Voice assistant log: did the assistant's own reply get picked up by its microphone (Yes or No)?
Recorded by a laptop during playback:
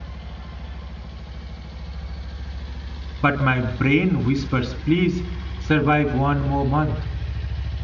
No